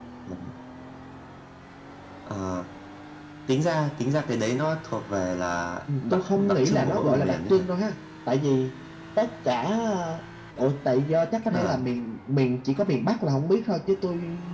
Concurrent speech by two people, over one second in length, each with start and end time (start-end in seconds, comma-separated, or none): 6.1-7.6